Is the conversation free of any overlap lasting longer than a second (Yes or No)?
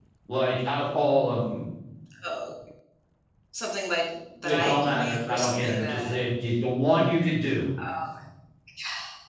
No